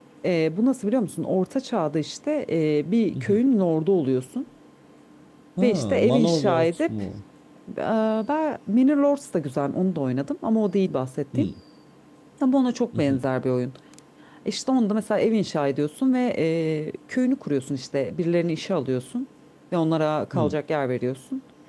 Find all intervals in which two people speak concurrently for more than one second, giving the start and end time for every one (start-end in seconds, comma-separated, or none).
5.6-6.9